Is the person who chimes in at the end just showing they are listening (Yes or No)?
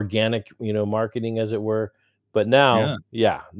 Yes